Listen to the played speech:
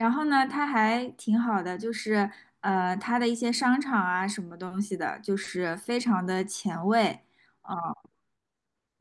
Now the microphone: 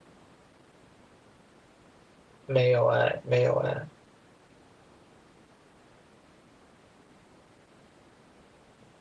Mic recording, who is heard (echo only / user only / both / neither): user only